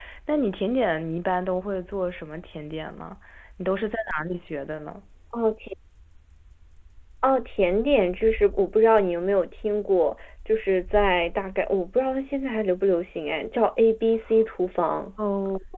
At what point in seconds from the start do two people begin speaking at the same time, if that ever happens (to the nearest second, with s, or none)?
none